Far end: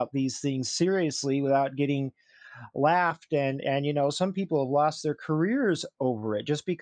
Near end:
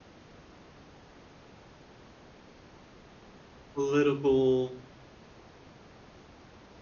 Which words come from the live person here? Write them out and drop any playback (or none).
Political